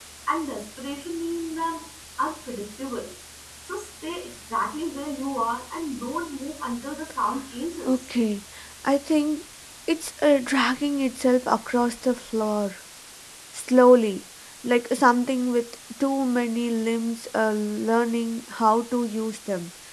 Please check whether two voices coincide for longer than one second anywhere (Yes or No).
No